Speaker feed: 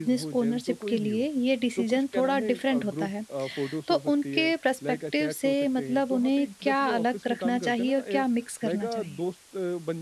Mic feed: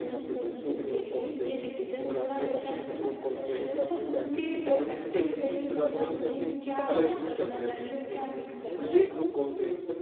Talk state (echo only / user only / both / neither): both